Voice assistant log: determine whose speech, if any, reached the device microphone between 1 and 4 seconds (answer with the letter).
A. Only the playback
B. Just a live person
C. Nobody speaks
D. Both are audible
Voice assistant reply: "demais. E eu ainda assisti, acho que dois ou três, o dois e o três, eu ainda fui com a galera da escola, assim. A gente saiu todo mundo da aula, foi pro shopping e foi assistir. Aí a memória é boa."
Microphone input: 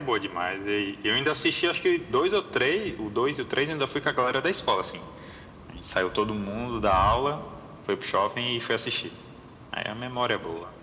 A